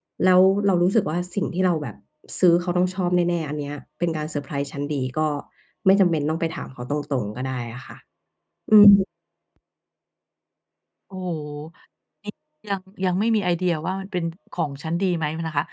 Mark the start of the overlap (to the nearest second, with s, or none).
none